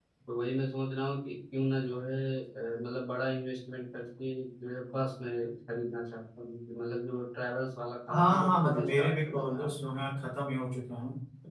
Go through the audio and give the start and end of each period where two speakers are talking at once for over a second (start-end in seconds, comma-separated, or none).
8.1-9.7